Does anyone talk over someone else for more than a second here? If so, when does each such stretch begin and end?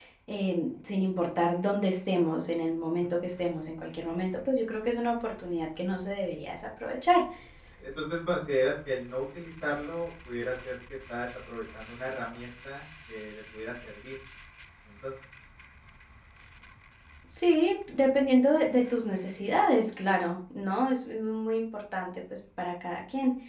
none

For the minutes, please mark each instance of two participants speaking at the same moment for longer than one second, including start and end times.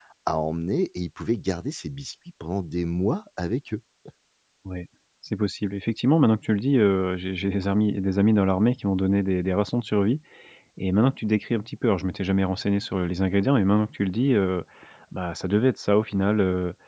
none

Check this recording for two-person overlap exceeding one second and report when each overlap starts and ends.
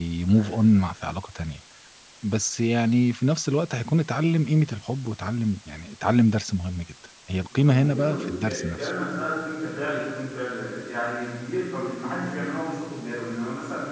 7.6-8.9

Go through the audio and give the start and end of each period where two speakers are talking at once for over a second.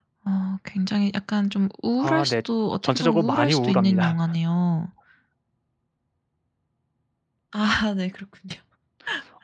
2.8-4.2

